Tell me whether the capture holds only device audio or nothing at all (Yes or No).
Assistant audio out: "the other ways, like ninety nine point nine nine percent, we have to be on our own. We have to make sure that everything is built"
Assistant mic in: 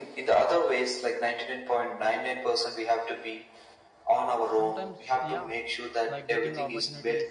No